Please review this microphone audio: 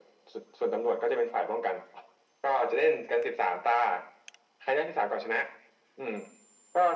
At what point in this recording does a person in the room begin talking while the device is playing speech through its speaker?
none

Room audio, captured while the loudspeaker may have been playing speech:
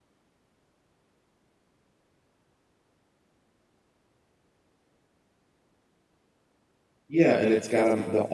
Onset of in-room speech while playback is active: 7 s

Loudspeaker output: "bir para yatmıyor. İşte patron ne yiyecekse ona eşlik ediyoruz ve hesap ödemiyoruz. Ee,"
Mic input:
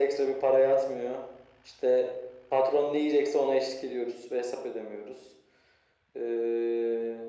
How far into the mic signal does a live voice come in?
none

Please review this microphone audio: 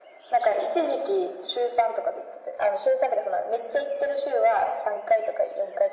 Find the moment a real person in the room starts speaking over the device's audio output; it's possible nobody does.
none

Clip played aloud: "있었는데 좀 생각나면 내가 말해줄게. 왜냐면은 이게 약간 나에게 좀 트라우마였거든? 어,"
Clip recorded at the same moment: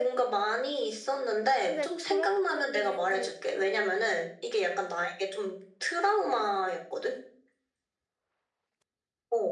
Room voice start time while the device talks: 2 s

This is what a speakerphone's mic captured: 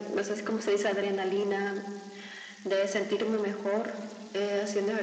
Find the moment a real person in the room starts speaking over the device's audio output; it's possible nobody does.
none

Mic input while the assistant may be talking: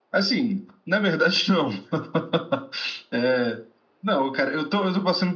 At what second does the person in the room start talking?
none

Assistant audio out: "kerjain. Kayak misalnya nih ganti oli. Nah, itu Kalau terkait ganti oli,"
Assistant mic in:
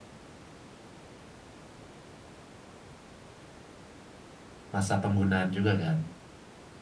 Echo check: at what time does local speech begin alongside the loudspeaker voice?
5 s

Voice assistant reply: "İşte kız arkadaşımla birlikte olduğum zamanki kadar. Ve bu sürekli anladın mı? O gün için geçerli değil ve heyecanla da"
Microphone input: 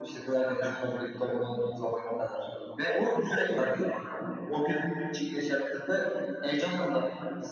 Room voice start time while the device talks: none

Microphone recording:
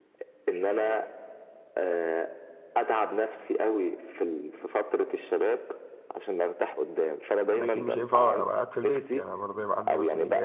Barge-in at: 8 s

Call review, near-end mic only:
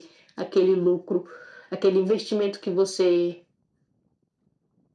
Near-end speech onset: none

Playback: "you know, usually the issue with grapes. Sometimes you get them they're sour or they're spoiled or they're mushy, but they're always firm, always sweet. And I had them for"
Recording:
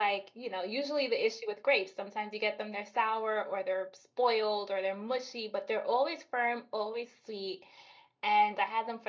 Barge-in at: none

